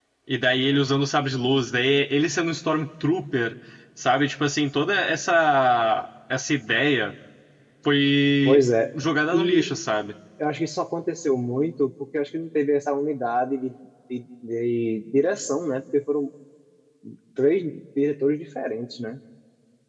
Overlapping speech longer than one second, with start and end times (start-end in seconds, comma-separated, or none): none